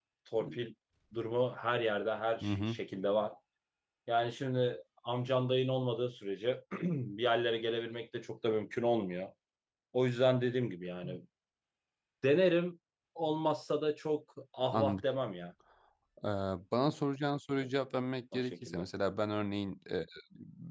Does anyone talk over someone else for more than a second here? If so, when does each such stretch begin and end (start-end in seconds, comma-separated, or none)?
none